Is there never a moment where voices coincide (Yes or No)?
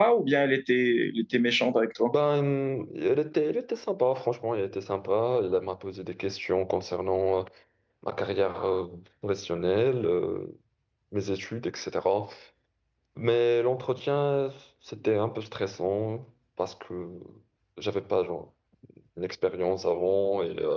Yes